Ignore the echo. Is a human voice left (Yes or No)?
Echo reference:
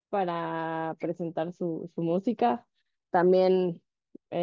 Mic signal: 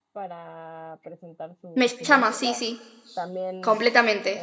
Yes